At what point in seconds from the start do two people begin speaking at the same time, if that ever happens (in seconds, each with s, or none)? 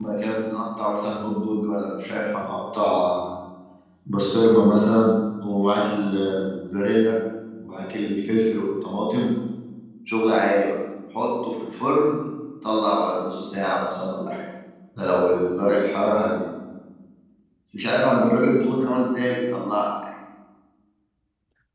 none